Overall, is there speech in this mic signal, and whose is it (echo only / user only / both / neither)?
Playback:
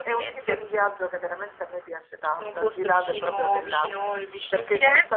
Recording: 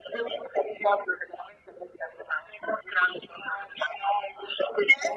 echo only